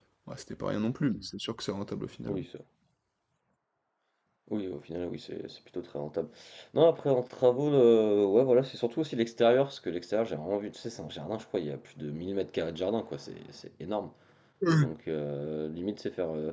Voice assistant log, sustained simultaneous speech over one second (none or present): none